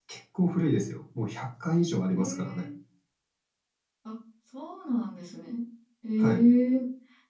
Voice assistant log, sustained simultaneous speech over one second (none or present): none